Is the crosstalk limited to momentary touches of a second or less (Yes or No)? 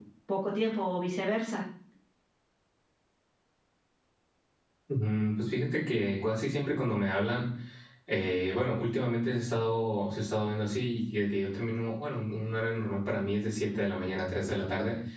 Yes